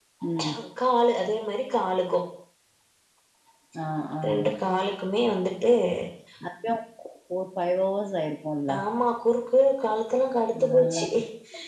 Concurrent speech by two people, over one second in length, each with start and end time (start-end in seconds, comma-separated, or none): none